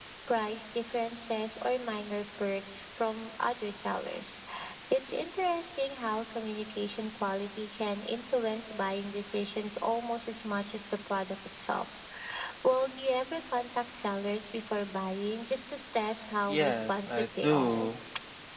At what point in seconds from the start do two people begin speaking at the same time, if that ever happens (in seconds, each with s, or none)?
16.5 s